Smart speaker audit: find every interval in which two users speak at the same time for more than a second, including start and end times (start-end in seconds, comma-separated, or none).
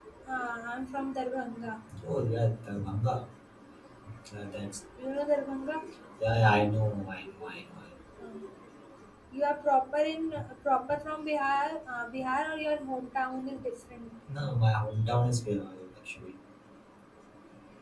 none